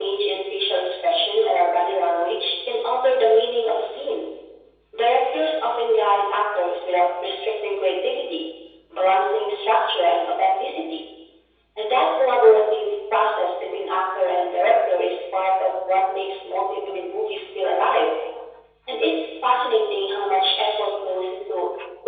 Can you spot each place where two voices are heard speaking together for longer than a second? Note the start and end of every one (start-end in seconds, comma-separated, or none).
none